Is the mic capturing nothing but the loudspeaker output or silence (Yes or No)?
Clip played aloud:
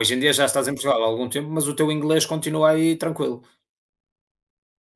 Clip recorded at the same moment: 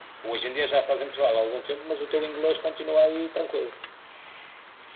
Yes